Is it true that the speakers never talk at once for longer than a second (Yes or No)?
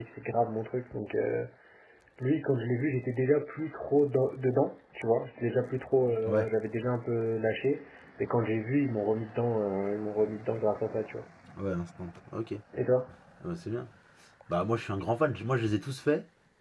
Yes